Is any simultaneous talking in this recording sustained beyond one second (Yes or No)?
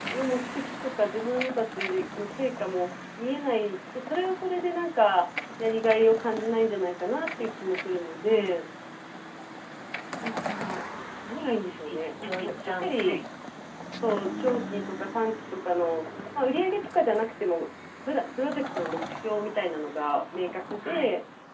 Yes